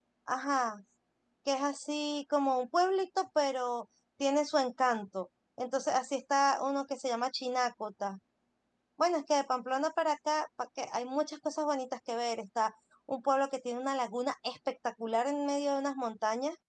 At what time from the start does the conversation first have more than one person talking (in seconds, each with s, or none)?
none